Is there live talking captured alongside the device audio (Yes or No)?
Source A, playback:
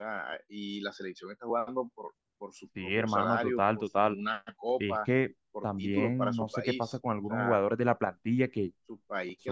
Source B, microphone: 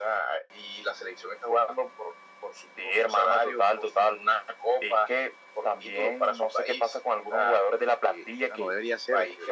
Yes